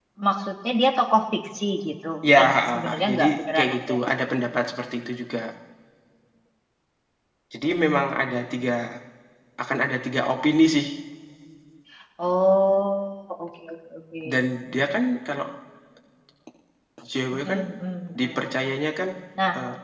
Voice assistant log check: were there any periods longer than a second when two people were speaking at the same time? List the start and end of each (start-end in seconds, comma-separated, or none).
2.3-3.9